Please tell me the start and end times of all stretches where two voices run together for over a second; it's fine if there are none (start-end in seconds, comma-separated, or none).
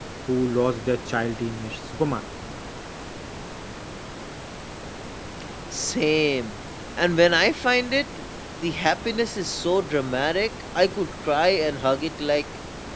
none